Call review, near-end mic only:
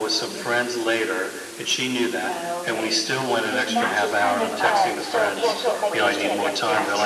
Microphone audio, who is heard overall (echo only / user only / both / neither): both